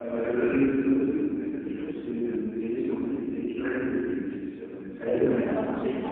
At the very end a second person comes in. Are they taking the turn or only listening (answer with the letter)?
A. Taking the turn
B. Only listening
A